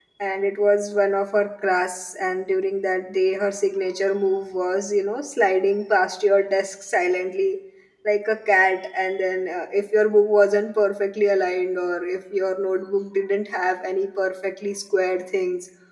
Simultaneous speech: No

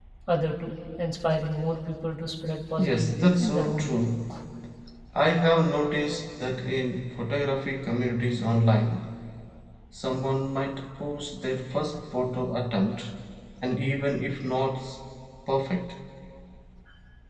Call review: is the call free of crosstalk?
No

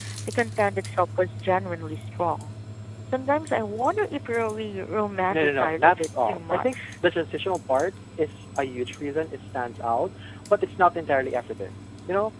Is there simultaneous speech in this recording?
Yes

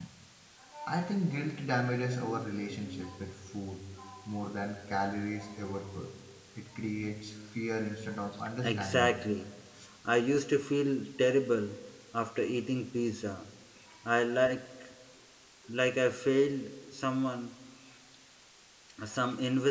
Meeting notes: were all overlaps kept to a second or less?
Yes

